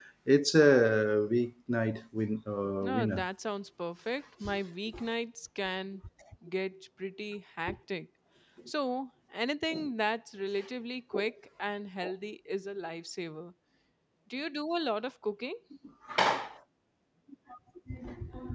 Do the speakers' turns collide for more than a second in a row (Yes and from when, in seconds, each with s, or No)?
No